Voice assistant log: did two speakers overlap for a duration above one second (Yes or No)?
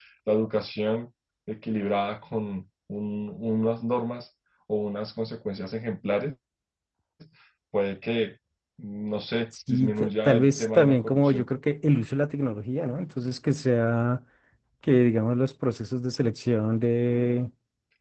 Yes